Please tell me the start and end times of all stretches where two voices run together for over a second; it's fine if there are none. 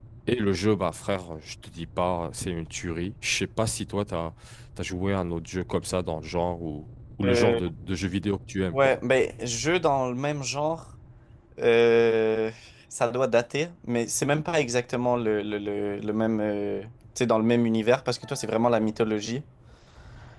none

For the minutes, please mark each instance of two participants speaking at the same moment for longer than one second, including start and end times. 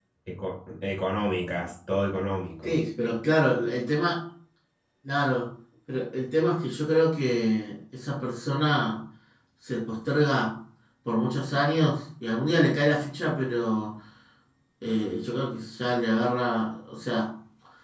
none

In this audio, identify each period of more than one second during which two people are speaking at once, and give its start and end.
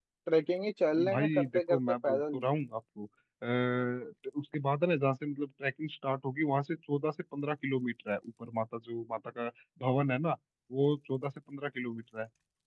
1.1-2.4

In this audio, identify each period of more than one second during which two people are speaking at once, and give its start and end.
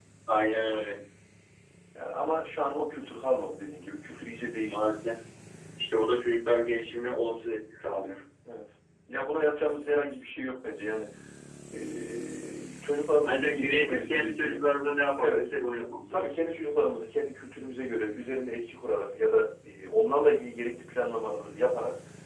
13.2-14.6

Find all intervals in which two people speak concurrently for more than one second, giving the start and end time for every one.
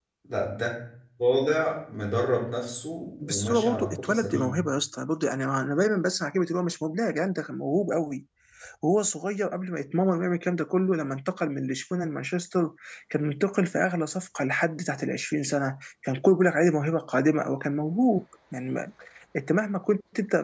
3.2-4.6

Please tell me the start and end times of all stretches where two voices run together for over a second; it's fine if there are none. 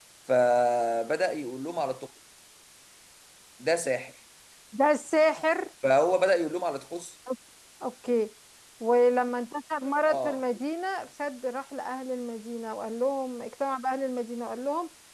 none

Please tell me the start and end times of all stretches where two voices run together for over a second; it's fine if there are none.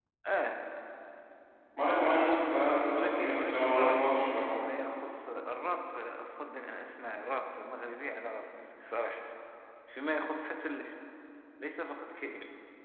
2.8-4.5

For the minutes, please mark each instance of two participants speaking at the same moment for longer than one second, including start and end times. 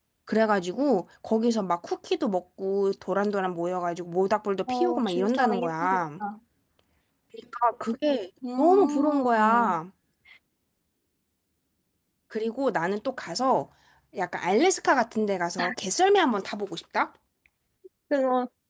4.7-6.0, 8.6-9.8

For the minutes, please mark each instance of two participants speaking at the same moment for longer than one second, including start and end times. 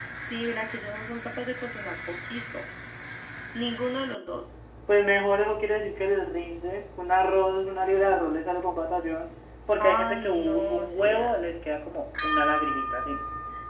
9.8-11.5

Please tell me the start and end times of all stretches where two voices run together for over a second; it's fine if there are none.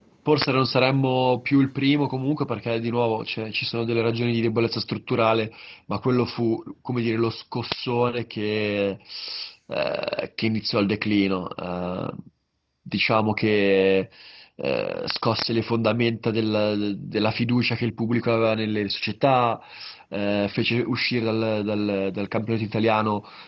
none

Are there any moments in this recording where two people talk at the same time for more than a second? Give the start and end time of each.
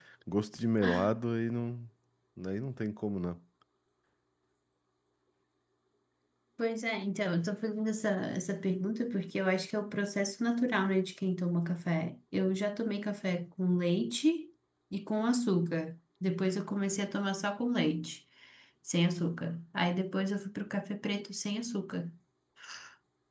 none

